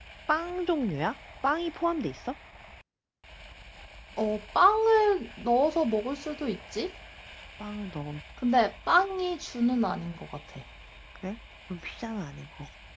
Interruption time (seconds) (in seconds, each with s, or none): none